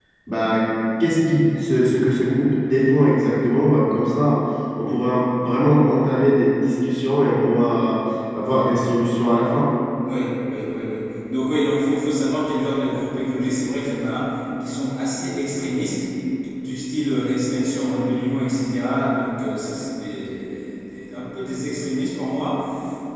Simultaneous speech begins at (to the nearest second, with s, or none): none